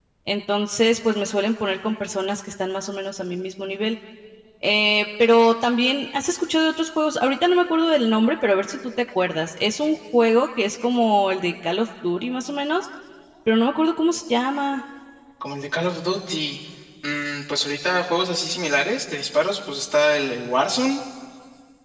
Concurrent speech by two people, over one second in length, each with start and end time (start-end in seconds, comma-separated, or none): none